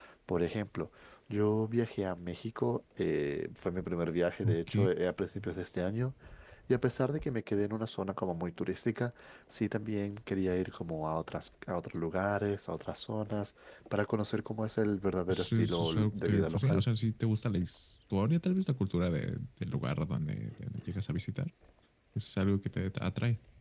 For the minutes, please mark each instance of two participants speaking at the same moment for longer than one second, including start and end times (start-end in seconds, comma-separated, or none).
15.3-16.8